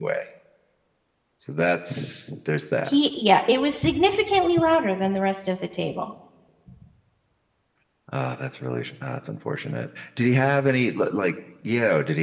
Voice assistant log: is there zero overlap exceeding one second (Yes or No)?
Yes